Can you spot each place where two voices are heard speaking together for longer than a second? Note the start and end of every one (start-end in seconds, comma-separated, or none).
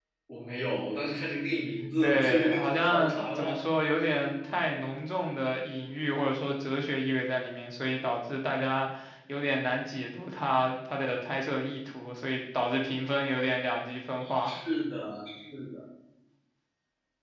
2.0-3.5